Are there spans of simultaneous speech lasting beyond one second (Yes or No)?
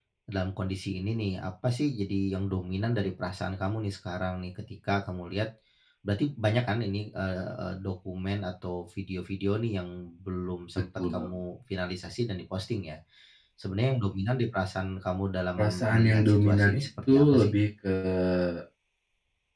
Yes